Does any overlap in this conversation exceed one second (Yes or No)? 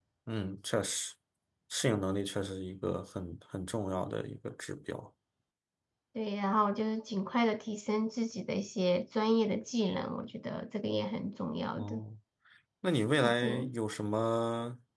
No